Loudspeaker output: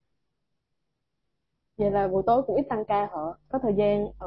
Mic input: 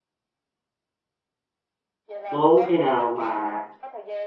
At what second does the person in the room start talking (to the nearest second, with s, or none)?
2 s